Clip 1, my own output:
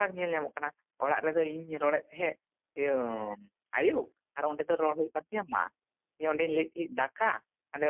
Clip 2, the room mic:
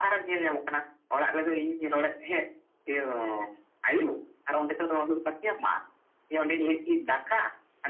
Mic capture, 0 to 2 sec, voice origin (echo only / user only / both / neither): echo only